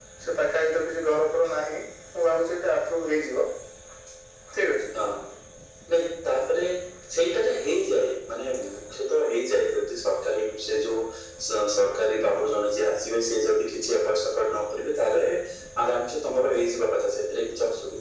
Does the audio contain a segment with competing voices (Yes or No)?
No